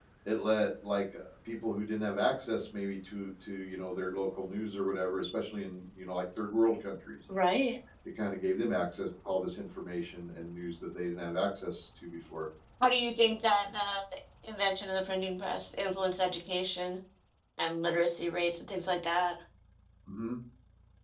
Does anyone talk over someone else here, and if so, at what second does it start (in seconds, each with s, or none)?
none